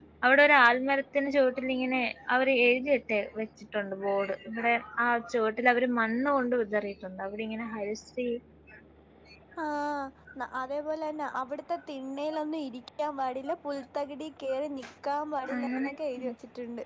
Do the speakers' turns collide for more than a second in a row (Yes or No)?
No